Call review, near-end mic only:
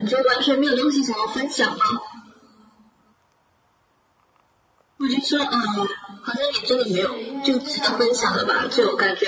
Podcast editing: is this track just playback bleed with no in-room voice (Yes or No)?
No